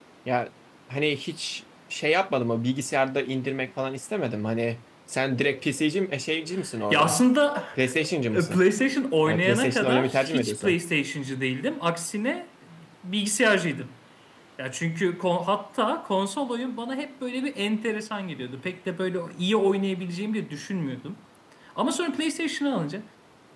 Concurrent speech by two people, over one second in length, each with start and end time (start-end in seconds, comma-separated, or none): 9.2-10.8